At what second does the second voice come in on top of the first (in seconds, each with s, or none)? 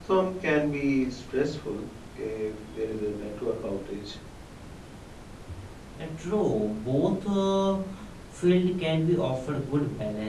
none